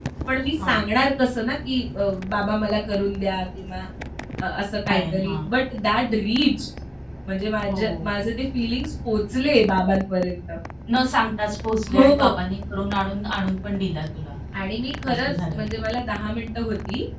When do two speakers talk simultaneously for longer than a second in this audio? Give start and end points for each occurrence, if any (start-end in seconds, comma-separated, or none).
none